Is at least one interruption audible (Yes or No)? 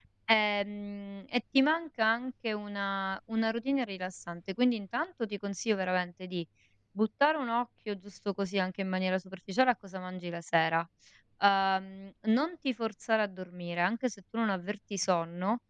No